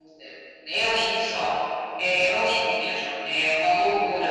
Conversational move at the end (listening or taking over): taking over